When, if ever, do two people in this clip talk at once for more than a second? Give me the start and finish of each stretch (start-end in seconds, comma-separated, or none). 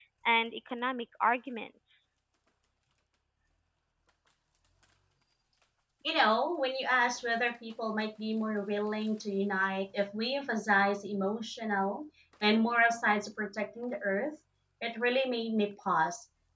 none